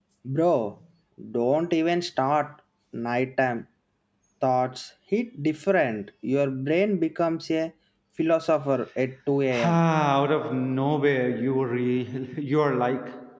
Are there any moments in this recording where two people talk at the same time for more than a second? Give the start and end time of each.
none

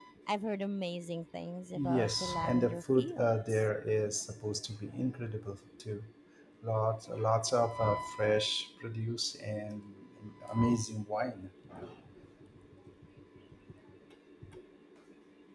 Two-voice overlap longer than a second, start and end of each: 1.8-3.6

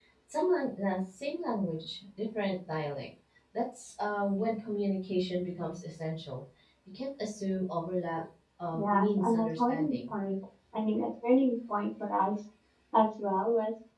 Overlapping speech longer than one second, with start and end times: 8.7-10.1

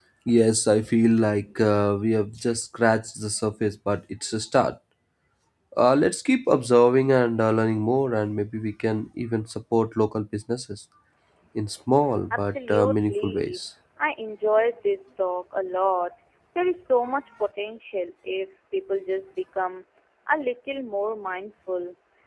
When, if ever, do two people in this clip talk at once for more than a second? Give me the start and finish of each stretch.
12.3-13.6

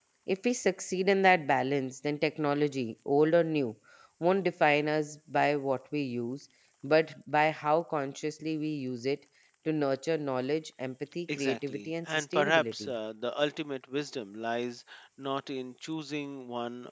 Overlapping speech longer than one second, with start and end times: 11.3-13.0

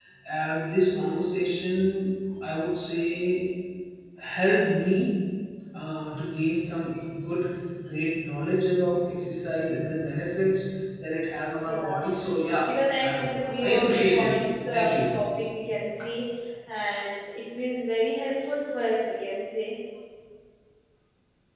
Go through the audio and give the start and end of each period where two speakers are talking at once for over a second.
12.7-14.3

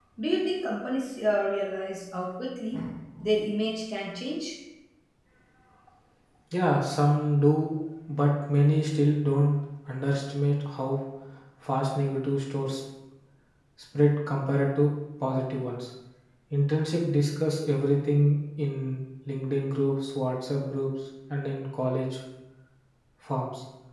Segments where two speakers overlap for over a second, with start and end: none

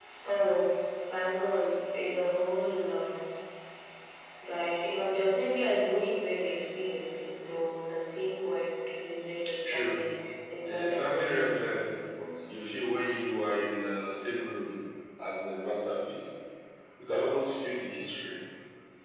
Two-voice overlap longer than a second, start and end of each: 10.7-11.9

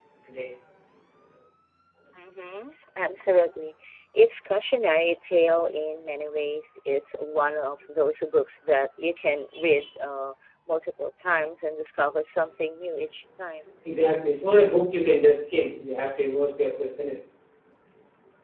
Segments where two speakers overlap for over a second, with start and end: none

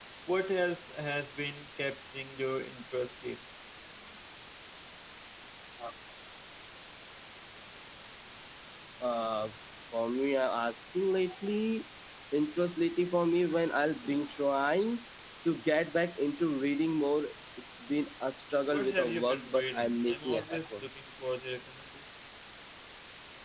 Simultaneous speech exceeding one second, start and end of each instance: 18.7-20.6

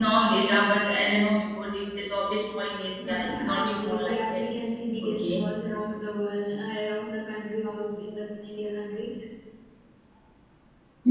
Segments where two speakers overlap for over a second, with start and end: 3.0-4.4

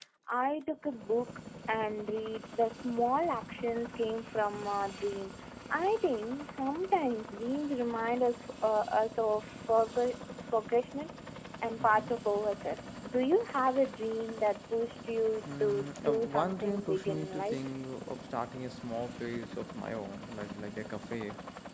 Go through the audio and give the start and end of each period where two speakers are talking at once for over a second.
15.6-17.6

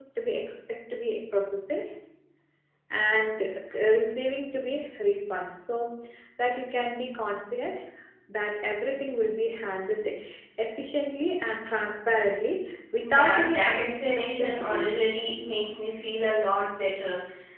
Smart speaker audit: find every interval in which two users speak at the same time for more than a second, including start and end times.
13.0-15.2

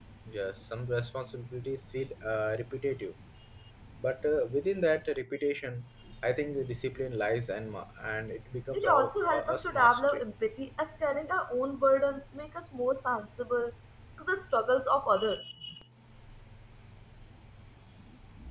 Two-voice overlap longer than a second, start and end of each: 8.7-10.2

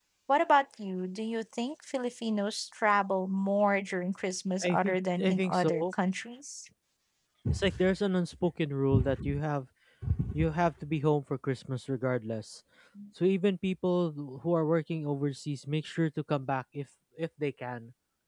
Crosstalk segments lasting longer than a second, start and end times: 4.6-5.8

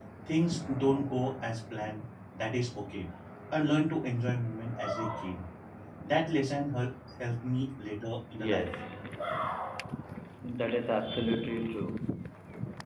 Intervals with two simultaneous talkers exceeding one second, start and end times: none

